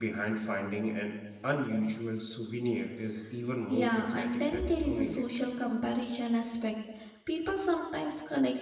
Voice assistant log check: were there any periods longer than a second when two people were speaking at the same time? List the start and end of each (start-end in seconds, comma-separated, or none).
3.7-5.3